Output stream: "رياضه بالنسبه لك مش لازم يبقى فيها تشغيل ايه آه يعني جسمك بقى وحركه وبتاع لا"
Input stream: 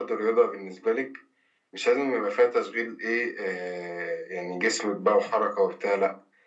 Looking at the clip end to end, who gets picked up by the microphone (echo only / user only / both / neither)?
echo only